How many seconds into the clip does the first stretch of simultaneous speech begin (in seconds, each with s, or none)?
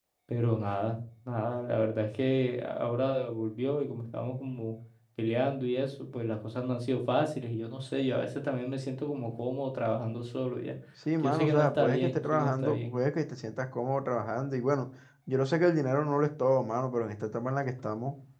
11.2 s